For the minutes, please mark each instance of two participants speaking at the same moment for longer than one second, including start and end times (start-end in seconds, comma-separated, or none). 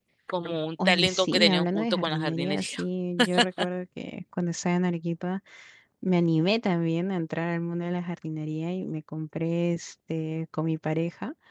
0.8-2.8